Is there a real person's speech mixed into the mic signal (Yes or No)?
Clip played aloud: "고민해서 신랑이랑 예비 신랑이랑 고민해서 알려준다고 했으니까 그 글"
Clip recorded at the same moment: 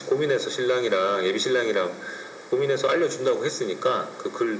No